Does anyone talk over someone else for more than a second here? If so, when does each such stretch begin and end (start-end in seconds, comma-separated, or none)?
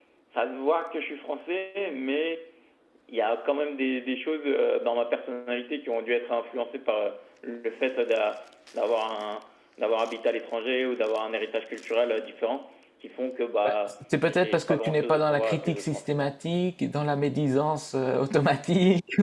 14.2-16.3